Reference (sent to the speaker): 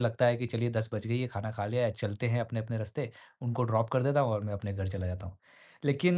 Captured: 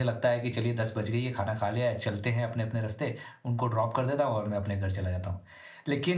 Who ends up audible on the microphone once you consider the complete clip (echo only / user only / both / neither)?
echo only